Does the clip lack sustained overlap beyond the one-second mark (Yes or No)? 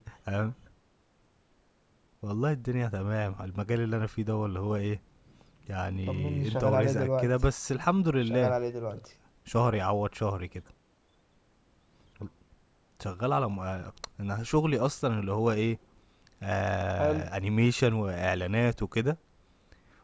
No